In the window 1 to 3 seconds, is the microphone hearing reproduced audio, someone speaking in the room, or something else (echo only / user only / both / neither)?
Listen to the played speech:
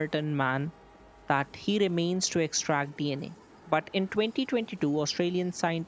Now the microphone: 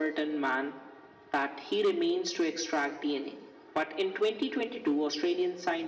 echo only